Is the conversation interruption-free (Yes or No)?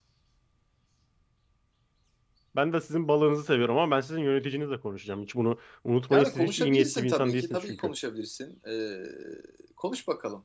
No